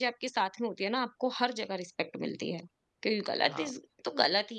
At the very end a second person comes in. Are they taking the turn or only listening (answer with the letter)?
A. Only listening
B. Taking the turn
A